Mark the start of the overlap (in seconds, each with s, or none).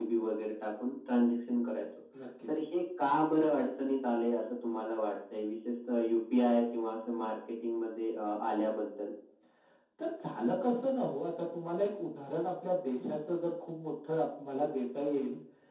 none